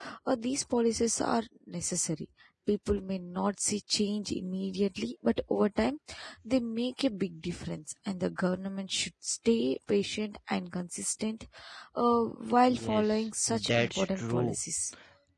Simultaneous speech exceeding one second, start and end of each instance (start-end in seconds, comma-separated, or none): 12.7-14.6